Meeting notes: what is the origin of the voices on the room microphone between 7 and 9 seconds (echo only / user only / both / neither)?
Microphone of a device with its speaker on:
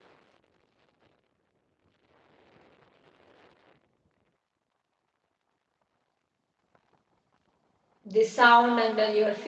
user only